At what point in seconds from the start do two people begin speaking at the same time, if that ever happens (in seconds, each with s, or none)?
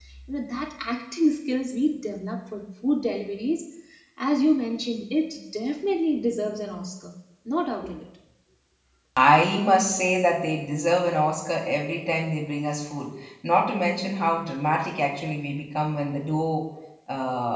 none